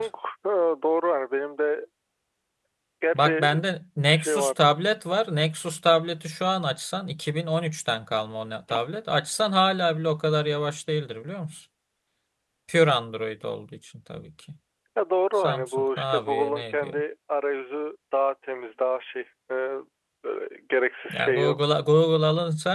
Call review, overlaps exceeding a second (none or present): present